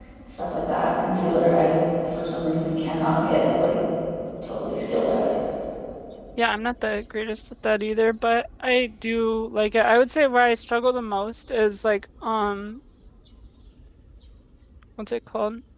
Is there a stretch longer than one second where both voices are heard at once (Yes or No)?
No